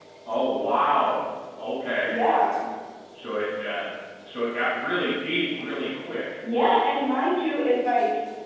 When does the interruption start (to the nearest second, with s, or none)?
none